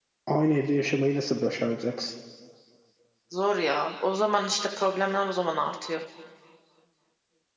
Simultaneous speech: No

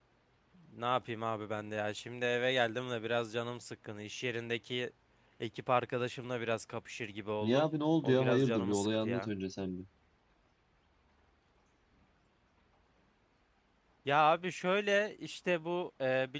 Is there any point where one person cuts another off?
Yes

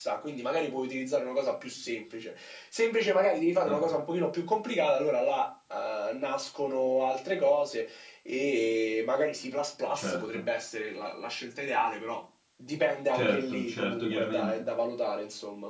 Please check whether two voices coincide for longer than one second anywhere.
Yes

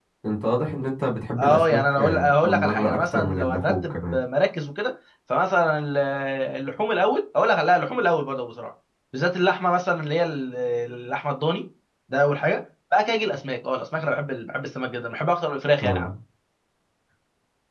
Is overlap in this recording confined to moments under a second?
No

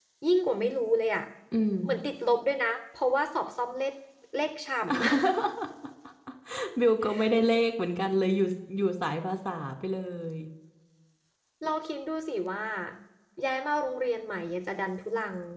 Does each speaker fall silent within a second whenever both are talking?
Yes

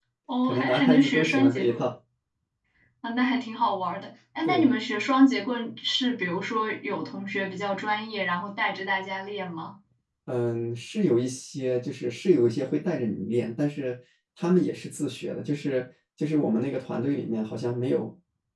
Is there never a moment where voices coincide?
No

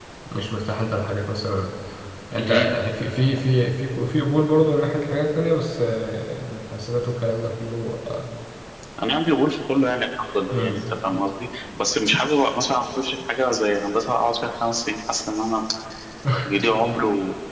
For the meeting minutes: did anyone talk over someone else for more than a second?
No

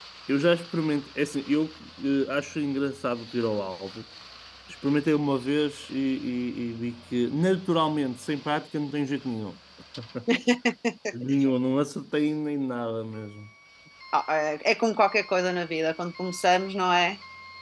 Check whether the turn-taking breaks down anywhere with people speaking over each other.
No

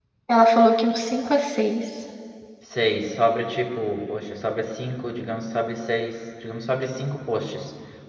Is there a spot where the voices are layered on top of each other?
No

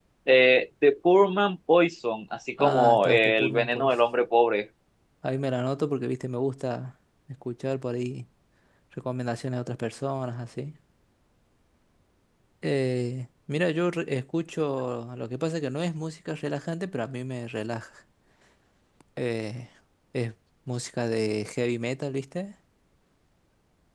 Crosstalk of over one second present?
Yes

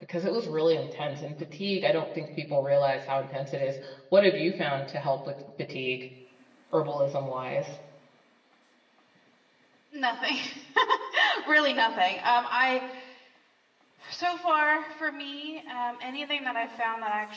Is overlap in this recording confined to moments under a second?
Yes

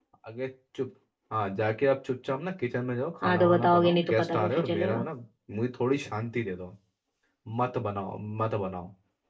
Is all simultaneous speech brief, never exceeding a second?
No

